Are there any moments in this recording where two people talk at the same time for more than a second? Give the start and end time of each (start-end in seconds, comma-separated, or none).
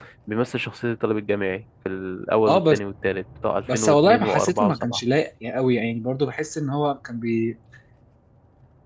3.7-5.0